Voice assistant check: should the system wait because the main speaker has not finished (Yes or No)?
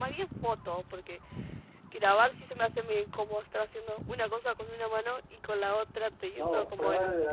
No